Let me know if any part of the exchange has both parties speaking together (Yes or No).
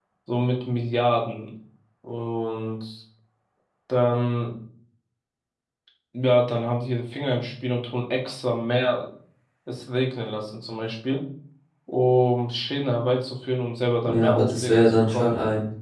Yes